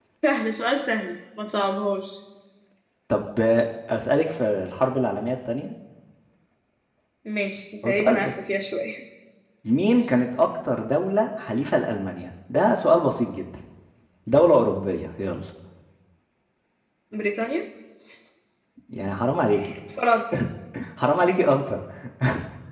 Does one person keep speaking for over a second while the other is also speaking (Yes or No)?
No